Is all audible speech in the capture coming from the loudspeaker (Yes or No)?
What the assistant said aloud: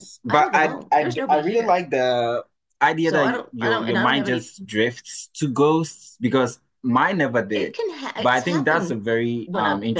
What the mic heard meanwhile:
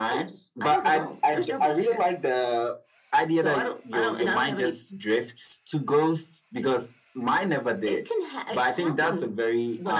Yes